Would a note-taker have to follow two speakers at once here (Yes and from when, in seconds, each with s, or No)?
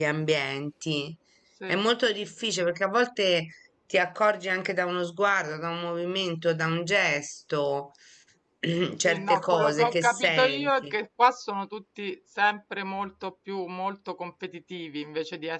Yes, from 9.0 s